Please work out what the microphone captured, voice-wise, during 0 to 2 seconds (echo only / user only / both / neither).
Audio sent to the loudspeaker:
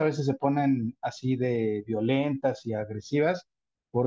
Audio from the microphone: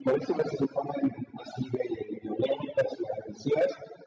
echo only